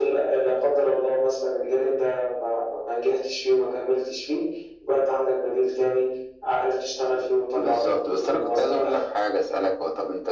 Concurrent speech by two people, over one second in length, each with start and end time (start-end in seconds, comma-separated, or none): 7.5-9.0